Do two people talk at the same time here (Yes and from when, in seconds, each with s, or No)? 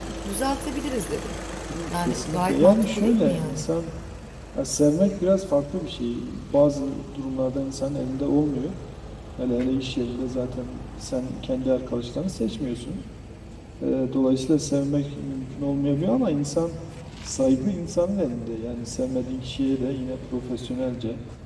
Yes, from 1.9 s